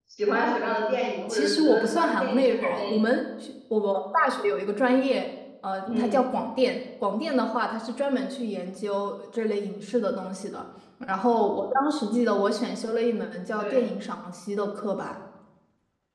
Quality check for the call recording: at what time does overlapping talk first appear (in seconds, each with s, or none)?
1.3 s